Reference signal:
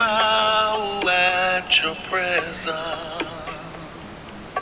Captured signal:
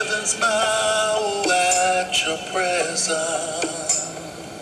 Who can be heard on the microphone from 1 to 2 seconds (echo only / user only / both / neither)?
echo only